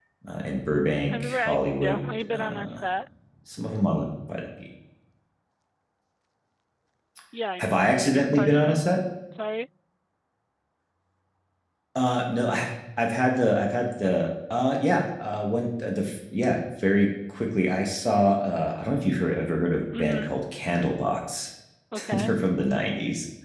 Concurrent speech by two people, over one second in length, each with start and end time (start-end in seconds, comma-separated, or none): 1.1-2.8, 7.6-8.8